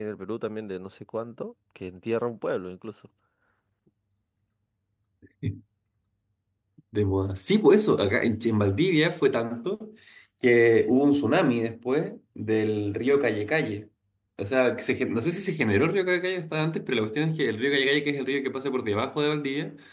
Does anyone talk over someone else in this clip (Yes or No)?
No